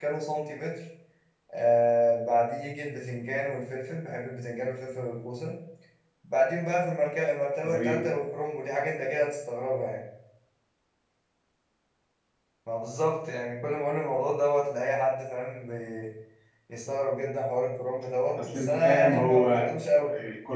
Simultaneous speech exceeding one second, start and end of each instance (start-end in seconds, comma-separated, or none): 18.4-19.7